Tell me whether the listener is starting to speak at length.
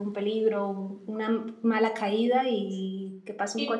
Yes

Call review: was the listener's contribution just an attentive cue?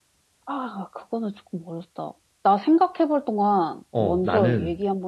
No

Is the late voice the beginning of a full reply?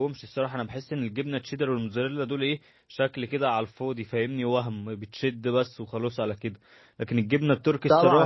Yes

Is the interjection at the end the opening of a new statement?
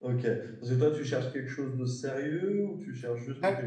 No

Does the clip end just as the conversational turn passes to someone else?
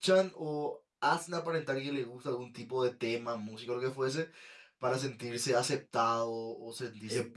Yes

